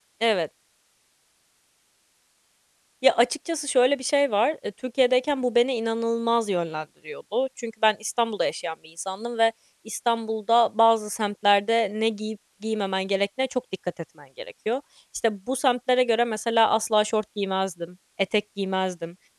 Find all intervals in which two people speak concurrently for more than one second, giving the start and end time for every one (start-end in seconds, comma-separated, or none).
none